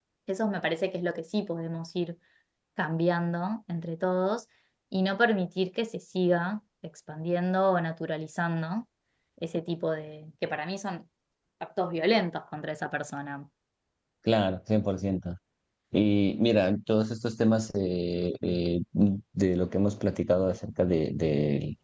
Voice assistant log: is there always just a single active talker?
Yes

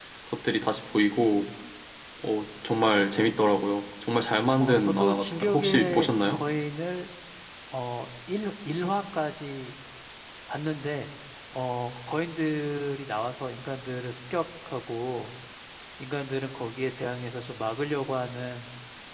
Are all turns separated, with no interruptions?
No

